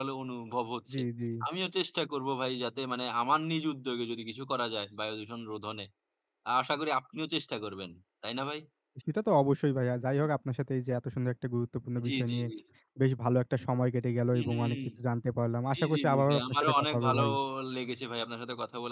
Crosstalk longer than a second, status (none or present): present